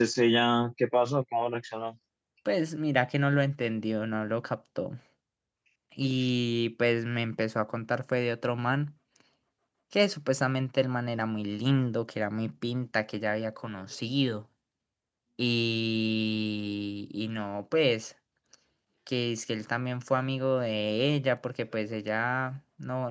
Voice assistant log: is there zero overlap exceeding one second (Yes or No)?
Yes